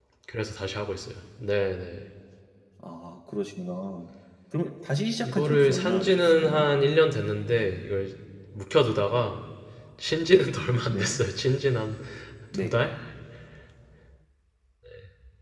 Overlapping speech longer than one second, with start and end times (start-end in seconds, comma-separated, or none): 5.2-6.7